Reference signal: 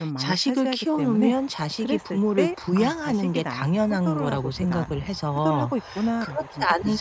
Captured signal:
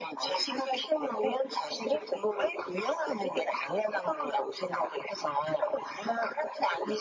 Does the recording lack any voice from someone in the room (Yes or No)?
Yes